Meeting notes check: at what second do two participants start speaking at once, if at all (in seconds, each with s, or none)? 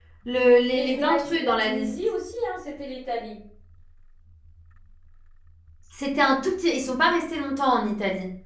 0.7 s